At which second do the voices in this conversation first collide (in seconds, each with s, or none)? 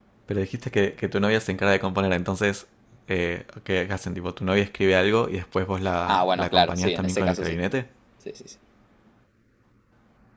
6.1 s